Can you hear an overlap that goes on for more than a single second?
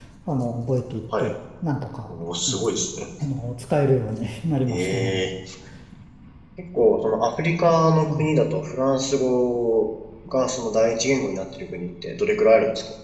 No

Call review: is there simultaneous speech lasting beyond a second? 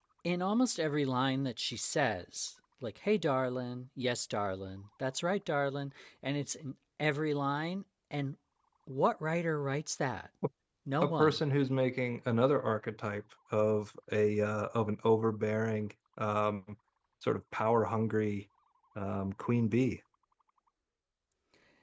No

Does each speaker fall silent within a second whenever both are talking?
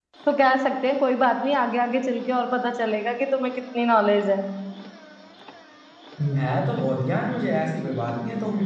Yes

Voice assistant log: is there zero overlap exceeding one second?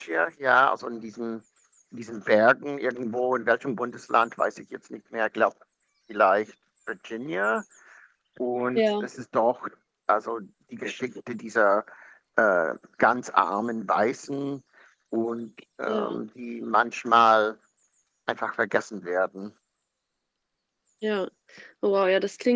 Yes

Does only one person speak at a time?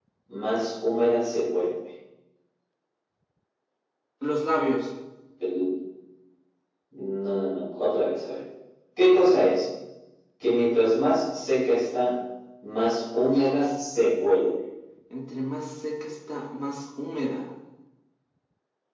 Yes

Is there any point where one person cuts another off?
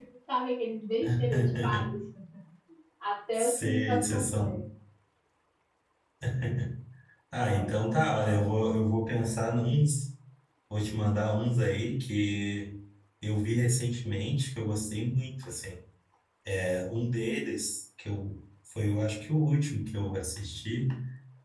Yes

